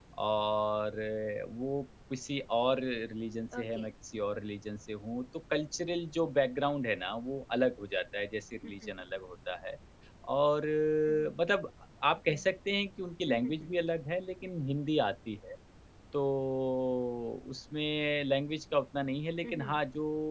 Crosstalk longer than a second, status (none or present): none